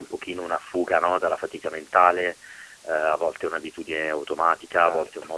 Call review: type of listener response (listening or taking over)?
listening